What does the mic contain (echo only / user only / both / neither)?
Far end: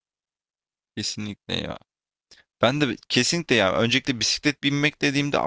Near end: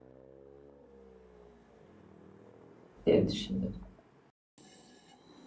user only